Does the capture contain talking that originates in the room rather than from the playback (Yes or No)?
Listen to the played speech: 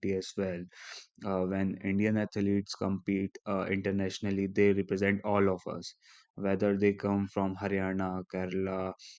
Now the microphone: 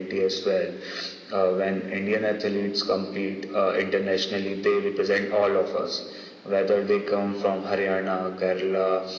No